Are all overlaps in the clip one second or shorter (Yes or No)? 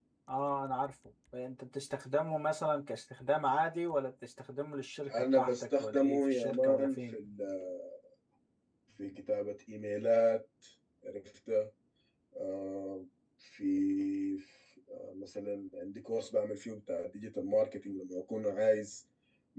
No